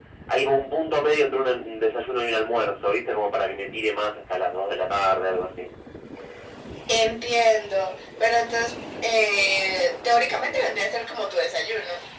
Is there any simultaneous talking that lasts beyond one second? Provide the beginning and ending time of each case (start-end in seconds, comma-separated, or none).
none